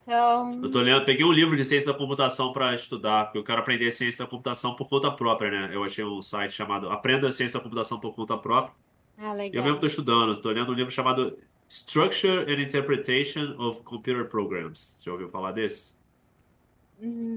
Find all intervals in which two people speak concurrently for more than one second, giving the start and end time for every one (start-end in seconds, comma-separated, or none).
none